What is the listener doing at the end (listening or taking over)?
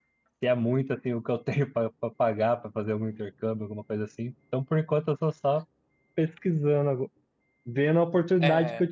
listening